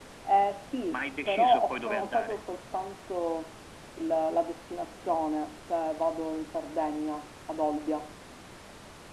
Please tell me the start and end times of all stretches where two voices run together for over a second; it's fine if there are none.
0.9-2.4

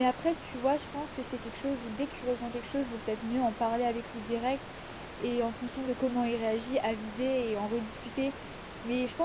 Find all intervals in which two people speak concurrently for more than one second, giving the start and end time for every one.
none

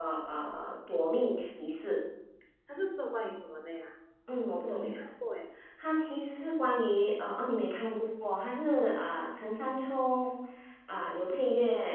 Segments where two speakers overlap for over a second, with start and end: none

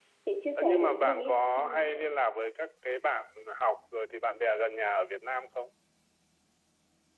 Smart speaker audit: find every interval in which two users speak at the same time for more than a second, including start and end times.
0.6-2.0

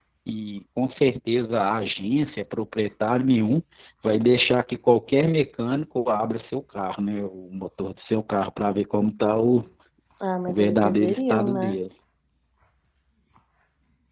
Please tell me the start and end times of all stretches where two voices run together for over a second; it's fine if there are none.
10.5-11.8

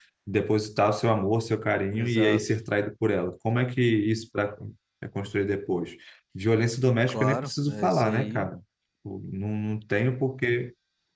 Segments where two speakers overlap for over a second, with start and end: 7.1-8.5

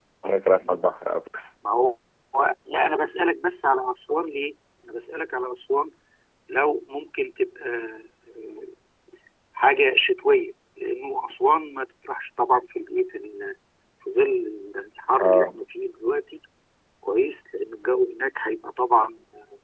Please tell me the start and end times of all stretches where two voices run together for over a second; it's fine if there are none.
none

